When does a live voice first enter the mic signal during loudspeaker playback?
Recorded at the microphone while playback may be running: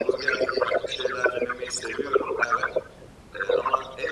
none

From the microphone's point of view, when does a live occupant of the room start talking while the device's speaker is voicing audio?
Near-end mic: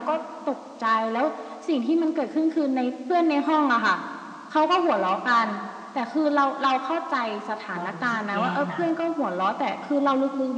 7.7 s

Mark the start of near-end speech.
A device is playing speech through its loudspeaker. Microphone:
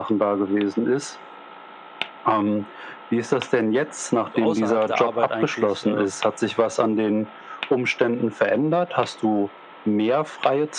4.3 s

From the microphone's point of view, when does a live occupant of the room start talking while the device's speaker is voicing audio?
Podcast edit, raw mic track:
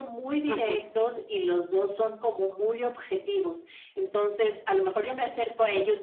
0.5 s

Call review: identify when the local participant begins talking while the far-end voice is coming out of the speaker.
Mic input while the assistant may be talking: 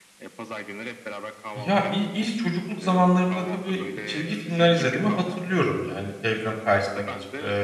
1.5 s

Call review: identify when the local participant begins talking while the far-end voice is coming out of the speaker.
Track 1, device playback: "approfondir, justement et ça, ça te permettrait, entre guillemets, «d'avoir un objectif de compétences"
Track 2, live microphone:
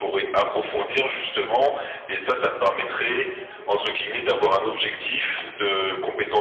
none

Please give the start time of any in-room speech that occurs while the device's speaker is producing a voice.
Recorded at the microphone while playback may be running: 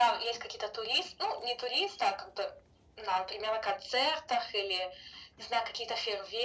none

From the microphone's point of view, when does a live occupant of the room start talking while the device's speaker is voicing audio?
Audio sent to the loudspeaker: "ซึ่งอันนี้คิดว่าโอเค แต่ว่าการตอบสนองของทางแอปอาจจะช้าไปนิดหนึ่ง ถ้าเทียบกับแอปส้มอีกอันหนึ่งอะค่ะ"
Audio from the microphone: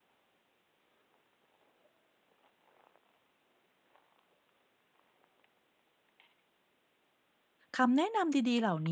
7.7 s

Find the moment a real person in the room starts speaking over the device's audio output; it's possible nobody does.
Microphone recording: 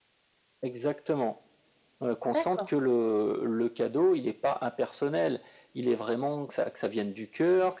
2.3 s

